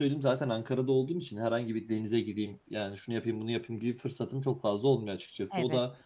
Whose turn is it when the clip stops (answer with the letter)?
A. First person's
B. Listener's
A